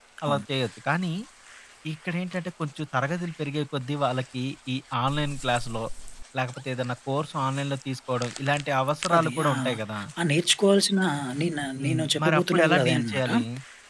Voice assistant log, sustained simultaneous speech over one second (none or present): present